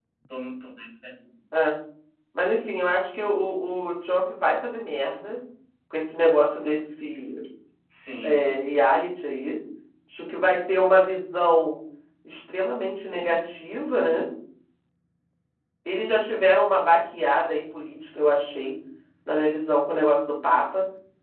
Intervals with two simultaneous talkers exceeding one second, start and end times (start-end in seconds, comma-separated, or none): none